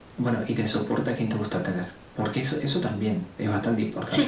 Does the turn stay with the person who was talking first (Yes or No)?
No